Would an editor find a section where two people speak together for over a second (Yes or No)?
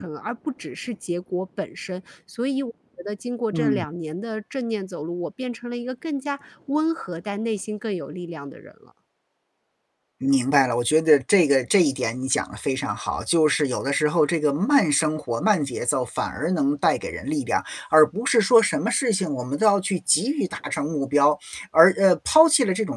No